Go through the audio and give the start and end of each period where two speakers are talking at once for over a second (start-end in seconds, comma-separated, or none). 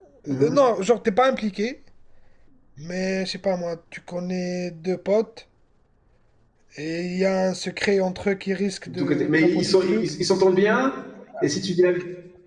8.9-10.1